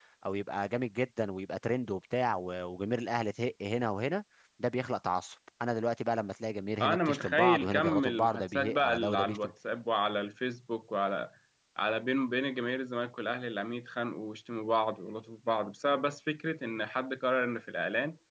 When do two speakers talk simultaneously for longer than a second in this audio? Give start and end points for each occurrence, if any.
6.8-9.5

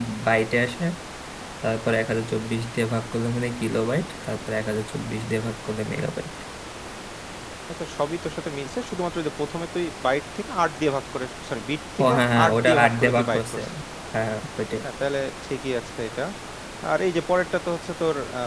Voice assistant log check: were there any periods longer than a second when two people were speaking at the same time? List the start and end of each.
12.0-13.6

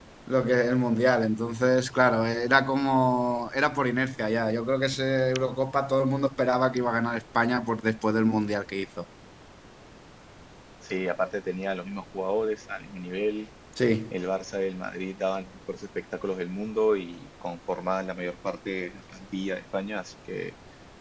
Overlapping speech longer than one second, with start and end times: none

